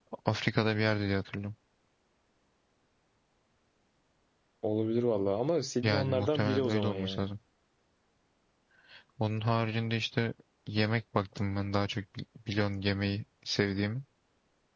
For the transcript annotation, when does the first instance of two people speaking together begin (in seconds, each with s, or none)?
5.8 s